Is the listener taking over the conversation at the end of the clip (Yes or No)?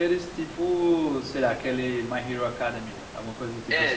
Yes